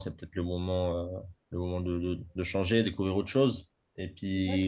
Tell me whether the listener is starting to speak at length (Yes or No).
No